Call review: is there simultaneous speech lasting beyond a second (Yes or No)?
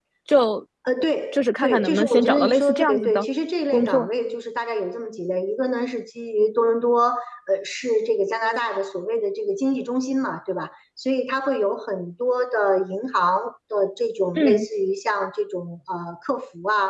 Yes